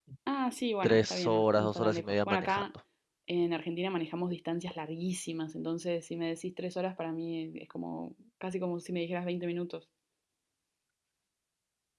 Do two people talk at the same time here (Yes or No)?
Yes